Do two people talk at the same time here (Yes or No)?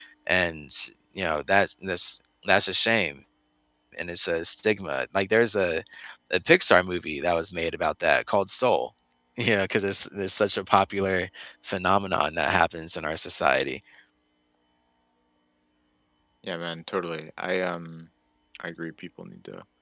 No